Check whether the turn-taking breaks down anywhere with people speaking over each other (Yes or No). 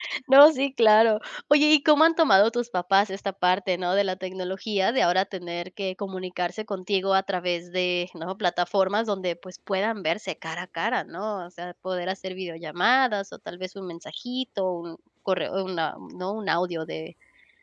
No